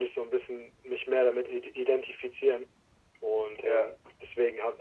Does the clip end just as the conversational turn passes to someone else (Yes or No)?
No